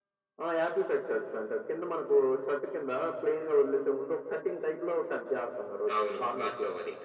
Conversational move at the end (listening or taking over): taking over